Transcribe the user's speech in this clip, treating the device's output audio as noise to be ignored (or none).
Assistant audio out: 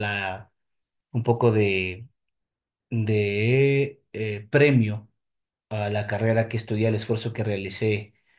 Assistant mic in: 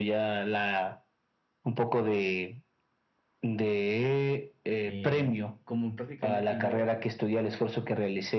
El- como prácticamente yo